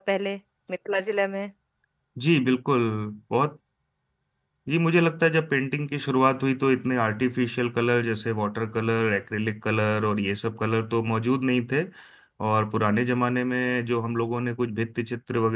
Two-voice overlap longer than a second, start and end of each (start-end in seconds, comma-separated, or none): none